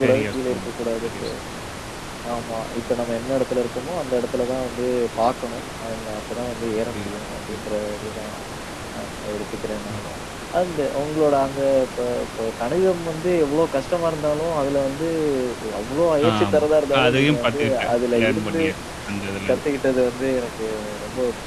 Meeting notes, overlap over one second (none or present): present